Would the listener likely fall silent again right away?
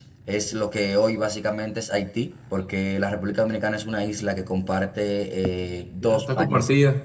No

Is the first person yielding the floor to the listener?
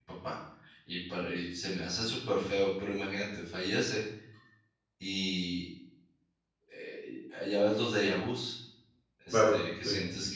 No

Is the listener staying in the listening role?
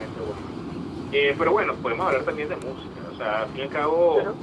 No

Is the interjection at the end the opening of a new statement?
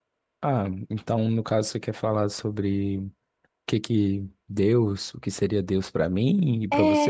Yes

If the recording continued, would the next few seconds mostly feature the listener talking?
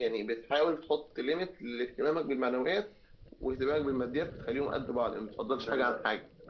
Yes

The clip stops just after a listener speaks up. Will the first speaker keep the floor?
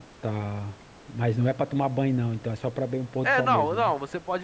No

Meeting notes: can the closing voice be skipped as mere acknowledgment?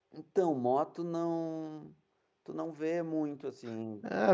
No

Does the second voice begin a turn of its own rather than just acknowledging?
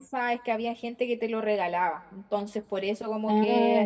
No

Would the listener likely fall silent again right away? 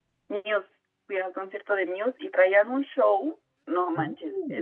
Yes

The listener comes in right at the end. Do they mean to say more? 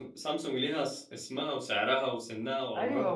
Yes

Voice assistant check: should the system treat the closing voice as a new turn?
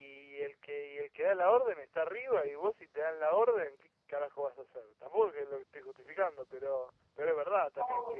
Yes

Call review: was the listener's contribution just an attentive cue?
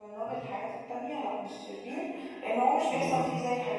Yes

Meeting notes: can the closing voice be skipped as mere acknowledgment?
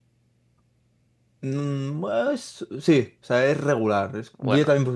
Yes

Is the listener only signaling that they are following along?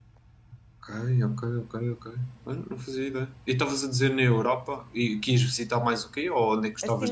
No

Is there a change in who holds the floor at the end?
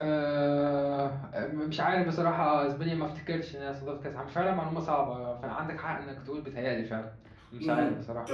Yes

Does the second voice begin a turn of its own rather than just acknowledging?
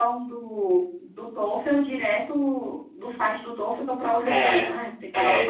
Yes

